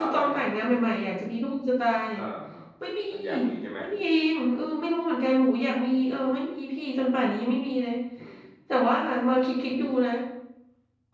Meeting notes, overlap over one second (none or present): none